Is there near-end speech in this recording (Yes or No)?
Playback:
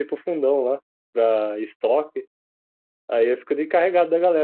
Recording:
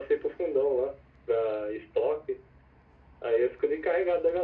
No